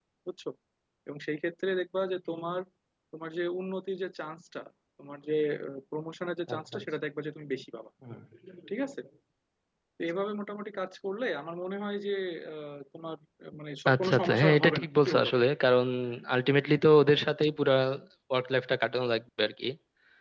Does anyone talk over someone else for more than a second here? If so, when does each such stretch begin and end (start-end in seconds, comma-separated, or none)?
13.9-15.3